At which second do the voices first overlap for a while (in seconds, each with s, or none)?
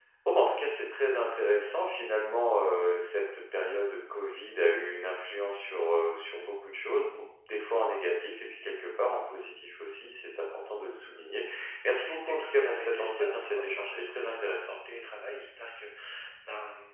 12.2 s